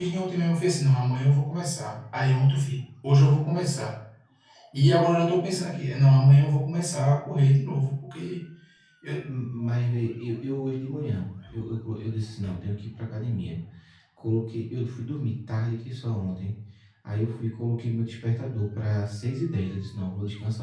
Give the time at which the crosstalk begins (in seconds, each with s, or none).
none